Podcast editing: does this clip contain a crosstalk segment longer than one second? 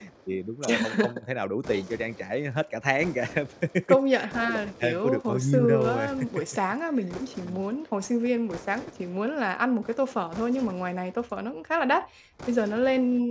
Yes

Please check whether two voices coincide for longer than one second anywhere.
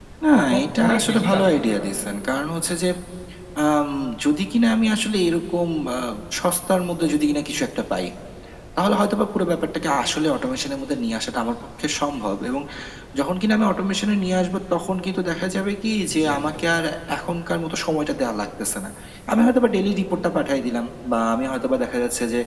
Yes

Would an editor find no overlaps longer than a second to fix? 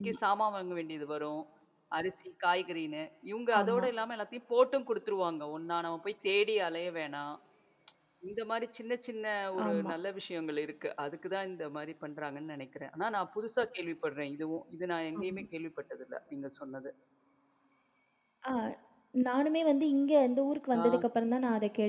Yes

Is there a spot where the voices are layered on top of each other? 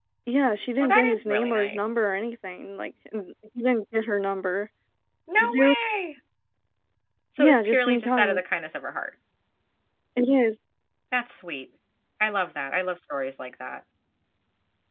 Yes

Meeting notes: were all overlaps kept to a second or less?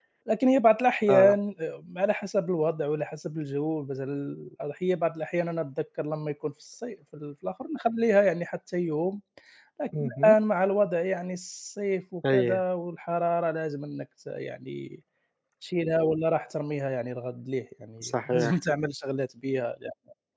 Yes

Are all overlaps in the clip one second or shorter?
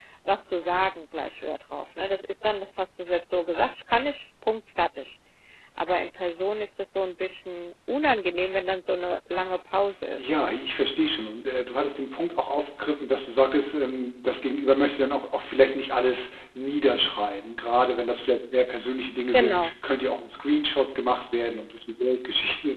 Yes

